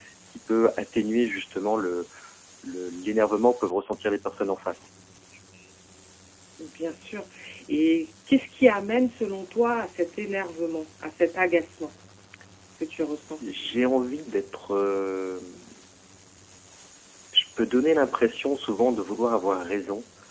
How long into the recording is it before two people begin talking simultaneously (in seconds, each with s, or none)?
none